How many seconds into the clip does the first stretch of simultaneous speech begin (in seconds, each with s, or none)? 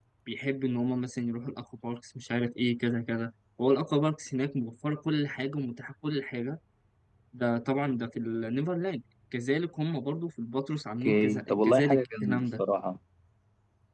11.0 s